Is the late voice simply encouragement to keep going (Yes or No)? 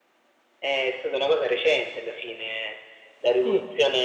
Yes